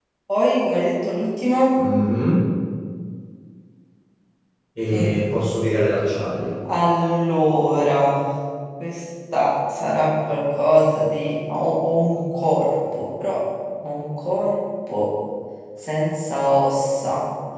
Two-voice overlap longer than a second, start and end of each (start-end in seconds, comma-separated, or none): none